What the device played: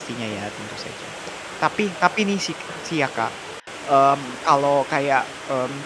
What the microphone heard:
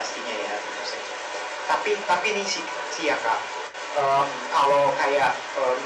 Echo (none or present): present